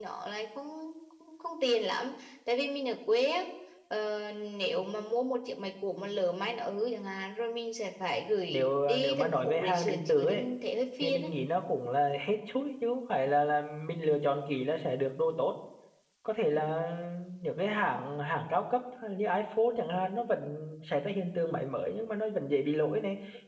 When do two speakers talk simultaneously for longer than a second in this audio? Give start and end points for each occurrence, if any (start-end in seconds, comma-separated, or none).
8.5-10.4